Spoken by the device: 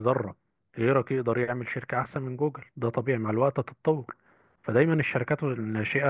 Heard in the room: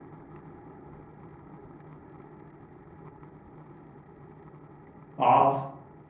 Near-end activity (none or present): present